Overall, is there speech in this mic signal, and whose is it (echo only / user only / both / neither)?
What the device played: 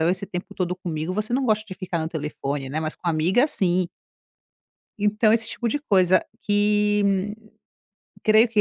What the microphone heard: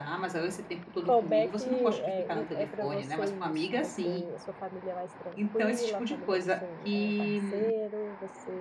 both